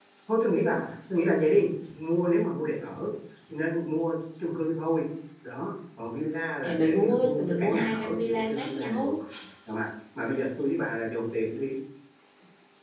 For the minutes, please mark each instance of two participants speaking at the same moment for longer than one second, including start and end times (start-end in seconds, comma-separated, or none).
6.6-9.1